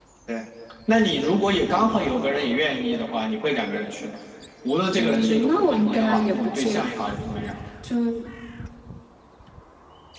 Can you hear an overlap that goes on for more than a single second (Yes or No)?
Yes